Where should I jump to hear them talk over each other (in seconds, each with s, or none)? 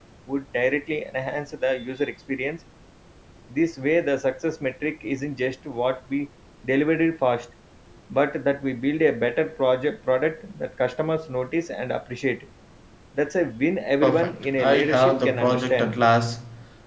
14.0 s